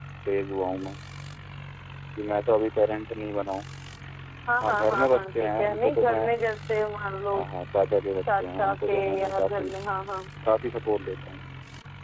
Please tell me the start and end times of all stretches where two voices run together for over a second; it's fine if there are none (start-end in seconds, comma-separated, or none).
4.6-6.3, 8.3-9.7